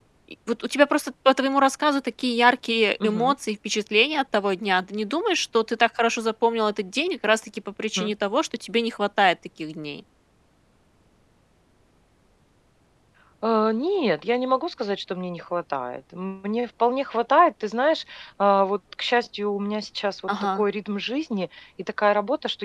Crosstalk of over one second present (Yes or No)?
No